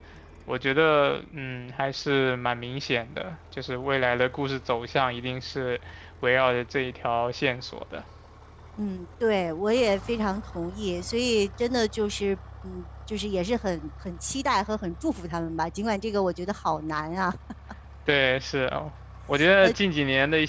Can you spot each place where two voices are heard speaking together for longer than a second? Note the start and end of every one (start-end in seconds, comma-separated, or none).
none